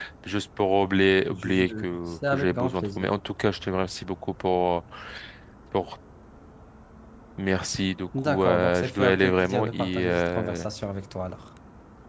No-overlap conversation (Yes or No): No